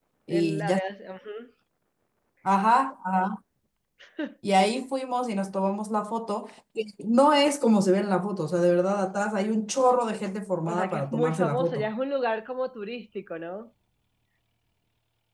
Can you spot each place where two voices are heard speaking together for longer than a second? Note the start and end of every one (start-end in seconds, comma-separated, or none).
10.7-11.9